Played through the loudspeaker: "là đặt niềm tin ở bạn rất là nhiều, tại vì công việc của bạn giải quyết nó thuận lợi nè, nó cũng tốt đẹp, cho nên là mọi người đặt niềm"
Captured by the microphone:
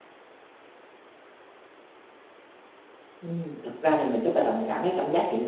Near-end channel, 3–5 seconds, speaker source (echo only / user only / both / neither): user only